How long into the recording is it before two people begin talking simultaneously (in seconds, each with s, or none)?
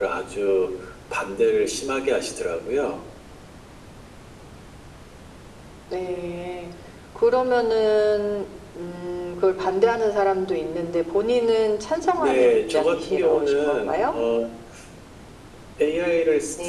12.2 s